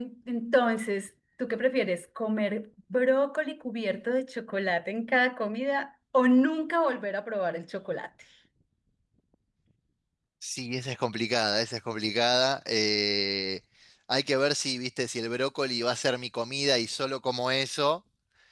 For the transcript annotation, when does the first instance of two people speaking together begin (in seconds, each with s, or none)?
none